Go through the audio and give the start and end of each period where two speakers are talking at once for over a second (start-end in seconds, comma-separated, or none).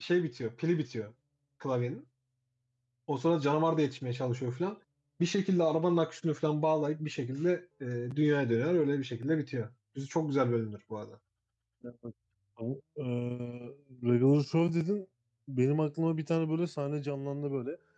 none